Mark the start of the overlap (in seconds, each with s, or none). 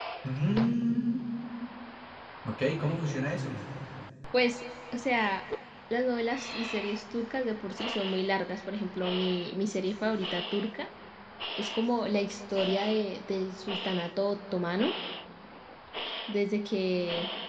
none